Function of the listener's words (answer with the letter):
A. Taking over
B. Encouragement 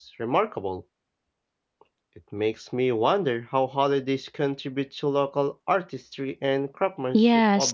A